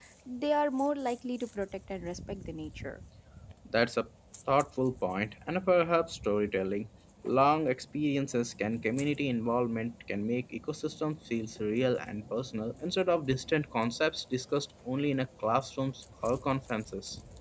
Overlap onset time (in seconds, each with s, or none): none